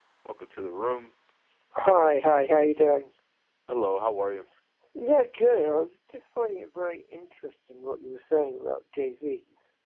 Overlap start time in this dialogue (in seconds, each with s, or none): none